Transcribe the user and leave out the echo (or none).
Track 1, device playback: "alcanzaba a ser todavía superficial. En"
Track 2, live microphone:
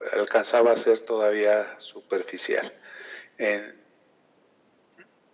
none